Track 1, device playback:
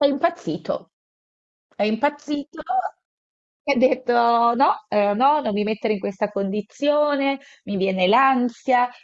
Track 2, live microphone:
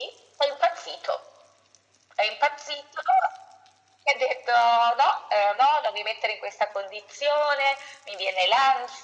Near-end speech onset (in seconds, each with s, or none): none